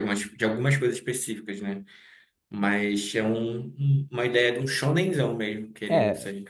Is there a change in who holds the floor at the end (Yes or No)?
Yes